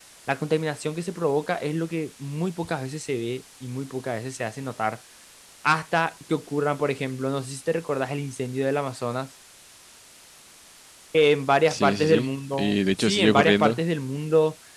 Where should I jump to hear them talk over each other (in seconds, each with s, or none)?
11.7 s